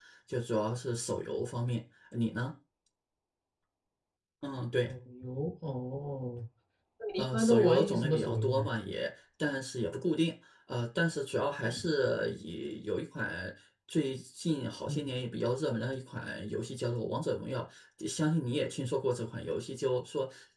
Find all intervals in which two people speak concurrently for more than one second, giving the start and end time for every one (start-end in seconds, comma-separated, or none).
7.2-8.6